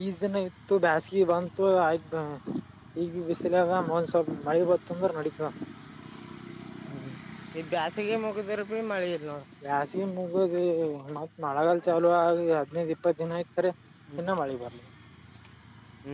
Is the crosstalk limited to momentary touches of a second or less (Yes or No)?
Yes